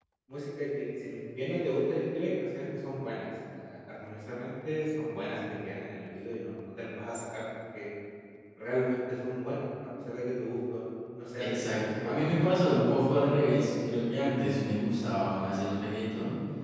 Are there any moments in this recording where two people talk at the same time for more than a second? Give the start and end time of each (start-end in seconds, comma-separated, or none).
11.4-13.3